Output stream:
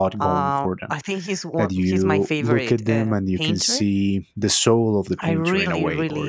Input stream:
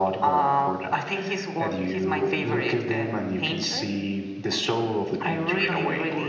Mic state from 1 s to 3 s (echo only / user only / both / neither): echo only